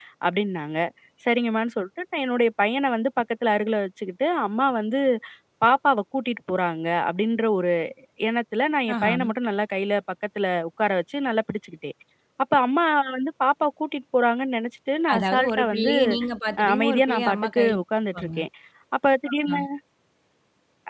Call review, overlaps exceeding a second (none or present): present